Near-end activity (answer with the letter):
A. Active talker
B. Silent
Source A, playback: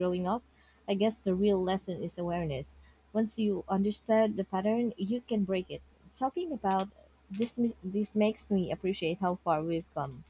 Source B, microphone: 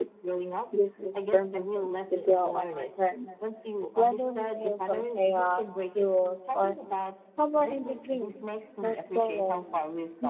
A